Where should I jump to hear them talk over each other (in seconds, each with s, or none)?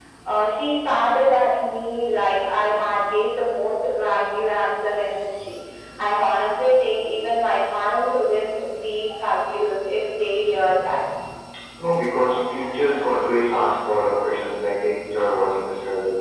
none